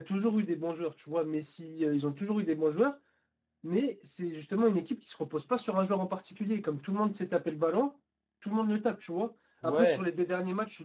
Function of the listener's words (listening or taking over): listening